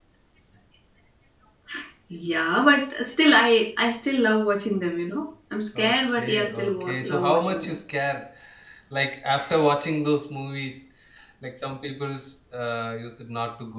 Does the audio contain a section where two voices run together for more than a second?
Yes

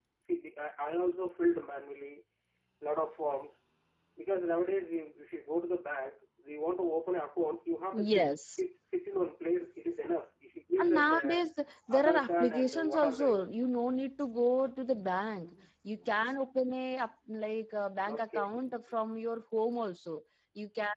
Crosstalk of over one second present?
Yes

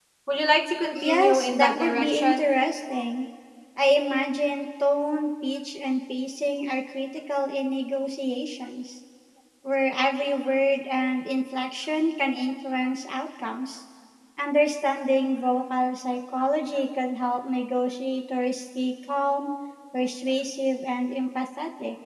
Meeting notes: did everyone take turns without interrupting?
No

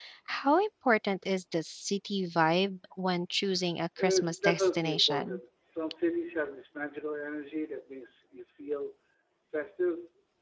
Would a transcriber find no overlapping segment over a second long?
No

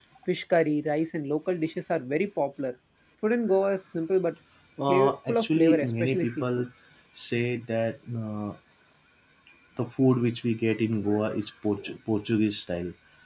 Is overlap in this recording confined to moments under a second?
No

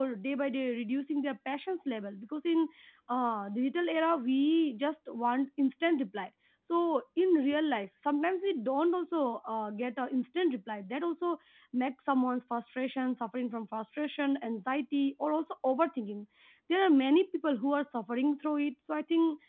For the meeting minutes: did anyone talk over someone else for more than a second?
No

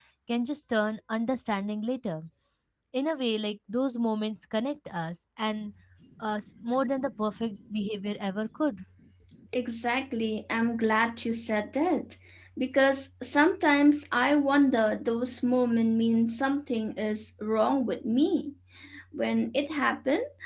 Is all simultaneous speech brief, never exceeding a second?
Yes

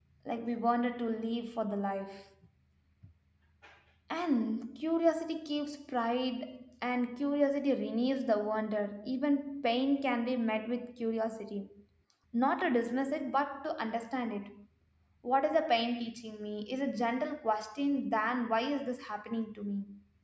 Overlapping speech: No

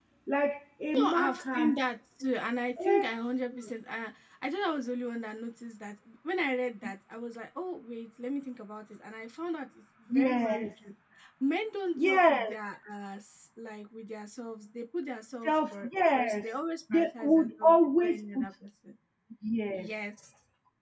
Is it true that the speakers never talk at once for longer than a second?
No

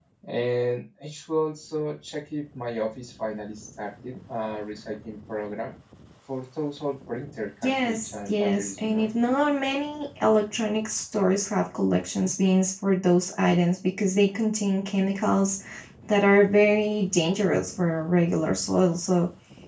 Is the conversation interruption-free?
No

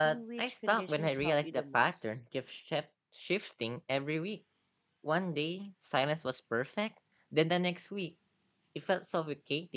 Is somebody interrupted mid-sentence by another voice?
Yes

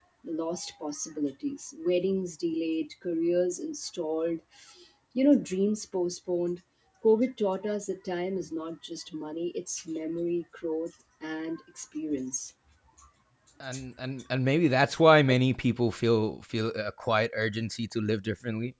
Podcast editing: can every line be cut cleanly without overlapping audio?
Yes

